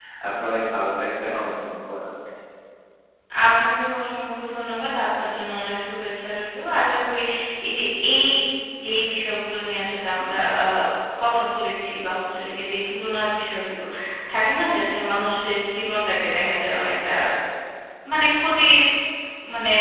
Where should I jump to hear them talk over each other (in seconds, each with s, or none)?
none